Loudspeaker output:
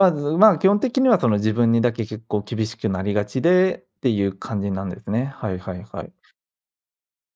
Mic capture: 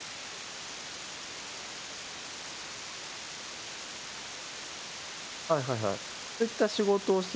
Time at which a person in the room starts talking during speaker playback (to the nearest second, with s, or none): 5 s